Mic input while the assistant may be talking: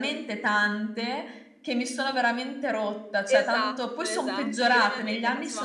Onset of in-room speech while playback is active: 3 s

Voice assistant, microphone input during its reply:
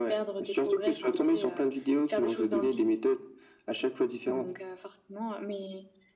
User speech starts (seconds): none

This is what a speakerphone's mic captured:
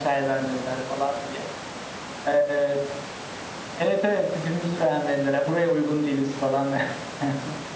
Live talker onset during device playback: none

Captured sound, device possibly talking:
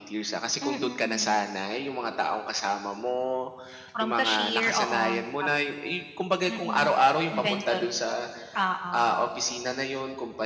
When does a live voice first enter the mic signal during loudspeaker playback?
none

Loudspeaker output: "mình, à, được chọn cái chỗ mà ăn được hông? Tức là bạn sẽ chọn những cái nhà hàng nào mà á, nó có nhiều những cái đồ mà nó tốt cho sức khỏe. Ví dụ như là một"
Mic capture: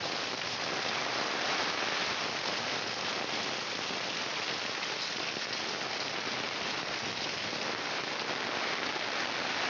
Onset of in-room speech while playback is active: none

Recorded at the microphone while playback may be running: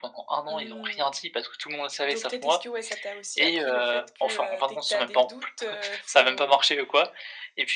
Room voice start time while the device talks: none

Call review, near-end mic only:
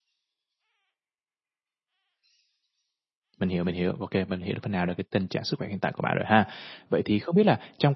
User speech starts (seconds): 3 s

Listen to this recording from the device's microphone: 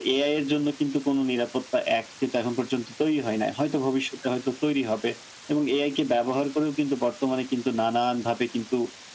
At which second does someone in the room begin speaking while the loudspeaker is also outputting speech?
none

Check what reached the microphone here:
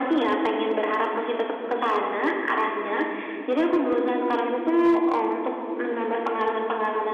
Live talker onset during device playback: none

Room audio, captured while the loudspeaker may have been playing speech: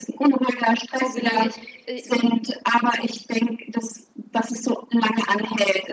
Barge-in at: 1 s

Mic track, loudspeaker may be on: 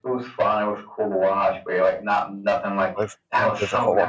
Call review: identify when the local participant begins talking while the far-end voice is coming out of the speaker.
3 s

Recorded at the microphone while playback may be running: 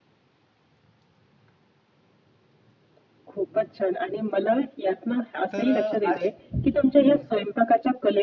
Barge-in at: 6 s

